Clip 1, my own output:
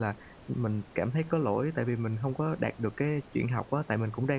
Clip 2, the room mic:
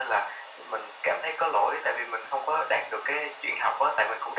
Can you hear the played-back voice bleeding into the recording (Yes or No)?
Yes